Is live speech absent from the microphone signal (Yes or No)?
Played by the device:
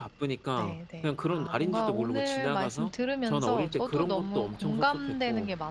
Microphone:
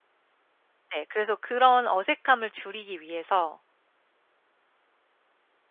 No